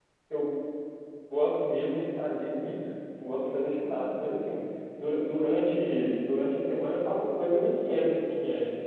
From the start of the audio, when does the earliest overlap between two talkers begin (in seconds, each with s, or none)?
none